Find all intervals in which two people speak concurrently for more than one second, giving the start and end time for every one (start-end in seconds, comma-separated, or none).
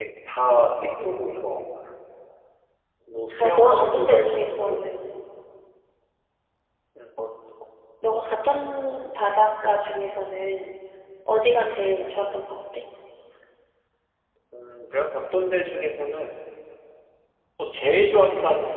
3.4-4.9